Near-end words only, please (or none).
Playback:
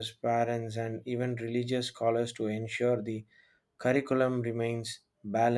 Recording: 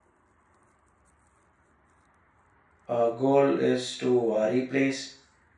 Our goal is to uh, replace